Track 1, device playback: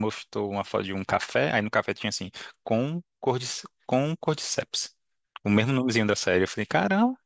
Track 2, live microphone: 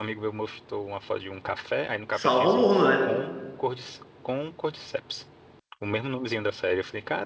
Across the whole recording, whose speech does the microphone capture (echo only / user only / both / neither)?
both